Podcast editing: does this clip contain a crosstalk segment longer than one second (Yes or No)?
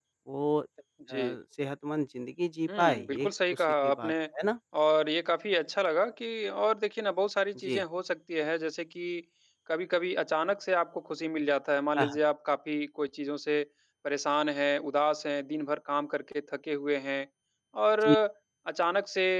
Yes